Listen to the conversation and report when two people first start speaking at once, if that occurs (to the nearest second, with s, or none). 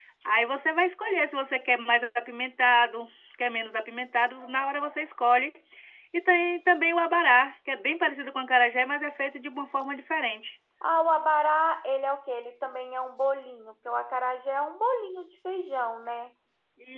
none